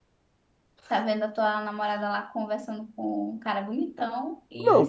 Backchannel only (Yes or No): No